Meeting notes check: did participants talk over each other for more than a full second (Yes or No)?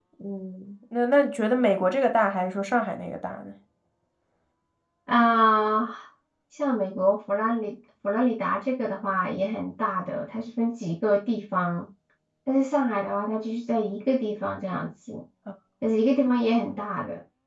No